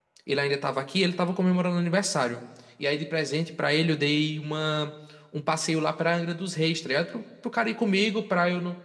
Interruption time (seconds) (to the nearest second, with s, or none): none